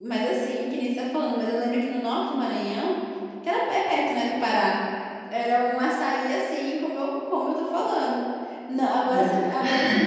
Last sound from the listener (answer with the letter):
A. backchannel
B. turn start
A